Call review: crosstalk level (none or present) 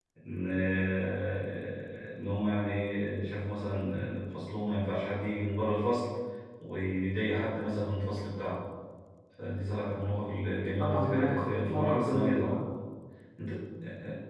present